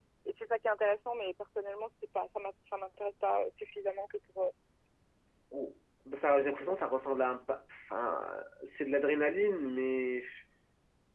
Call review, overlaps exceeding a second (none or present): none